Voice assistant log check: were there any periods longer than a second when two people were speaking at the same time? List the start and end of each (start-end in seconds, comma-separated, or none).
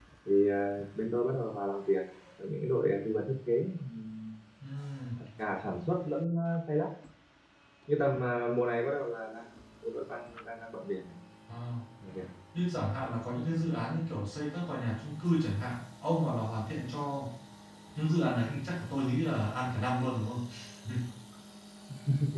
none